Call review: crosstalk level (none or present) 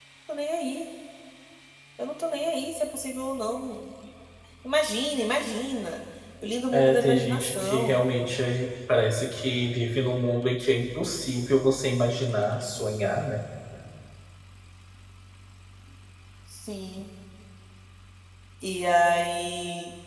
present